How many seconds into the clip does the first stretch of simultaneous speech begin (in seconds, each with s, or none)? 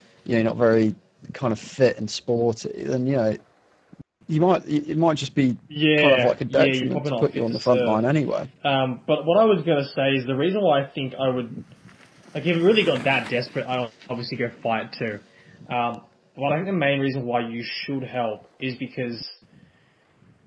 6.0 s